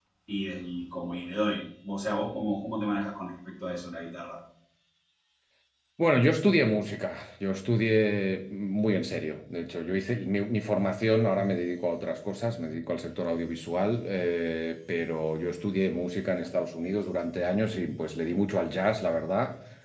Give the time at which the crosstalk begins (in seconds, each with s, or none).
none